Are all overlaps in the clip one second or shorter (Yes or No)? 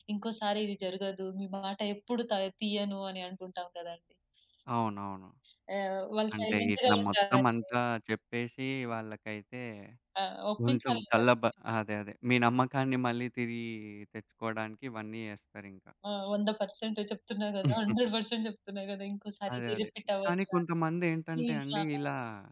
No